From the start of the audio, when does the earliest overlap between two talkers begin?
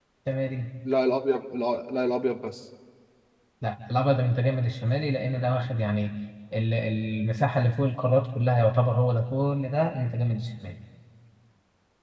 none

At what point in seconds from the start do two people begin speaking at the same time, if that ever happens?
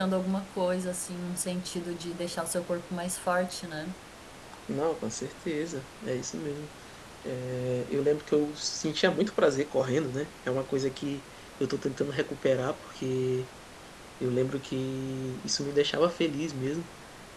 none

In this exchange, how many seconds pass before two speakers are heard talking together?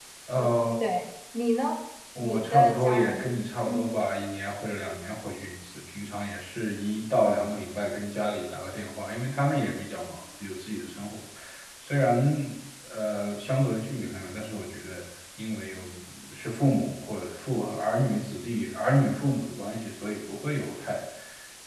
2.1 s

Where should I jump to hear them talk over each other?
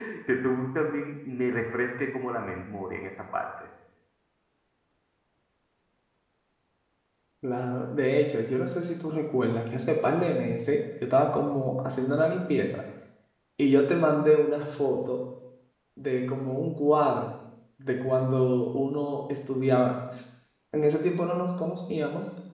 none

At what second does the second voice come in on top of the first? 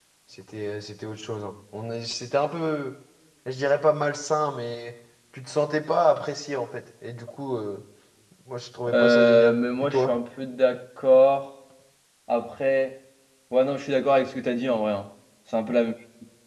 8.9 s

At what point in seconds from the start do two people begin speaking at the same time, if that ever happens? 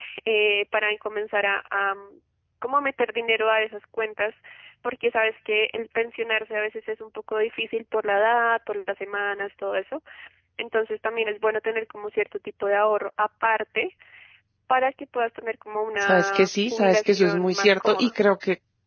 16.0 s

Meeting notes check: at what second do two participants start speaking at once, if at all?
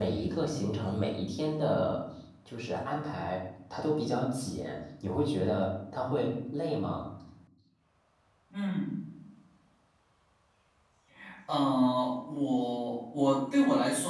none

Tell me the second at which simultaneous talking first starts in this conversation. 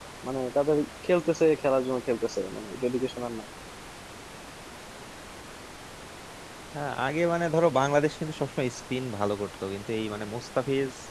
none

